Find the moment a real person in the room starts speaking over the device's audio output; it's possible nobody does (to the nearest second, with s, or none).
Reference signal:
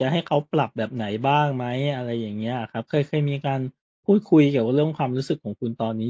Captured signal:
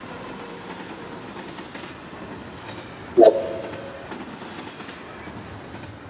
3 s